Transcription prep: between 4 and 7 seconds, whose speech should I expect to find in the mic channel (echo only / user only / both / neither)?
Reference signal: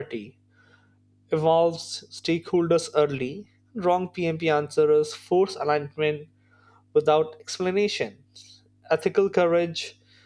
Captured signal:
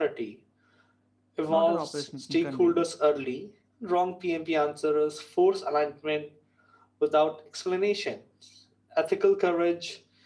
echo only